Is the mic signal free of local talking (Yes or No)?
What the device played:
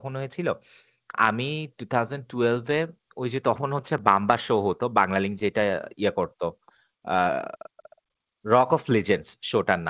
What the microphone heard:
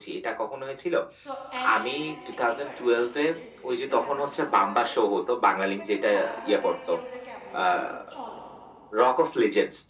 No